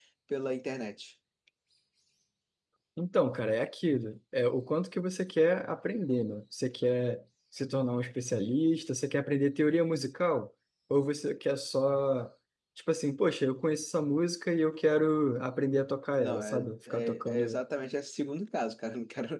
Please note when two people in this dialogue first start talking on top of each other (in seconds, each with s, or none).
16.2 s